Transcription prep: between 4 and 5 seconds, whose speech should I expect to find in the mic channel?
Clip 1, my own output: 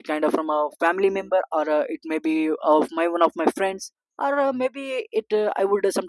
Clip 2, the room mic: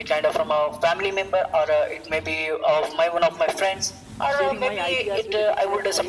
both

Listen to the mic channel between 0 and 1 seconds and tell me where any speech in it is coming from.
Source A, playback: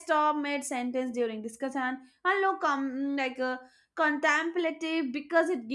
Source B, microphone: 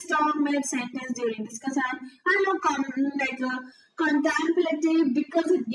echo only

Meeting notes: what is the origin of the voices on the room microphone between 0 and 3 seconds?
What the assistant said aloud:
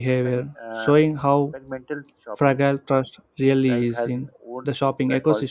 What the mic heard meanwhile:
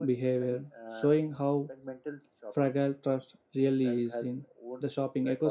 echo only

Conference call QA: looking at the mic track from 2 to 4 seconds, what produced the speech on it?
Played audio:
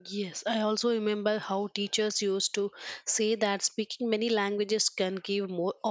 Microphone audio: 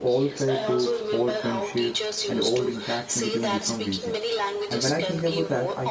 both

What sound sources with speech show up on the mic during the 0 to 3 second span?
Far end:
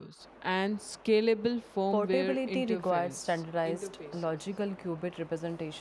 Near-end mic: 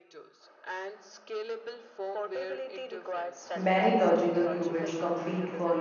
echo only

